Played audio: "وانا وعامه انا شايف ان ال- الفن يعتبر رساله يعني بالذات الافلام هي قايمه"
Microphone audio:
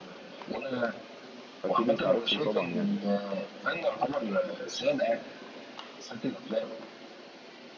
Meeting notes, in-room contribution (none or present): present